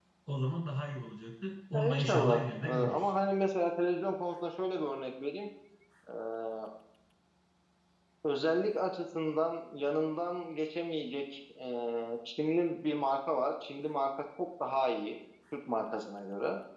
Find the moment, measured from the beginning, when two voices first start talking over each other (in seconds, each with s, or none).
1.7 s